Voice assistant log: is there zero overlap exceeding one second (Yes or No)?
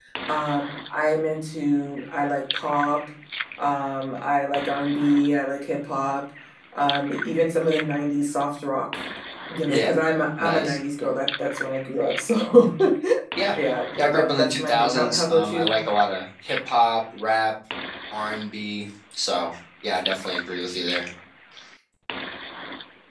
No